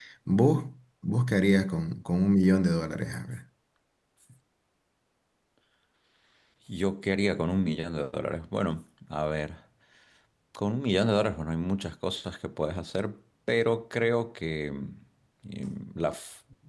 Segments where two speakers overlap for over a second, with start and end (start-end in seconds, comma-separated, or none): none